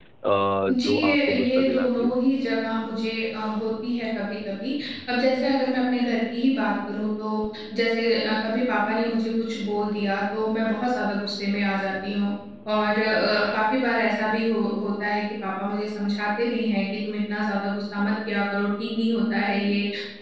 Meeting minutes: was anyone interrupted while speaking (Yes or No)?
Yes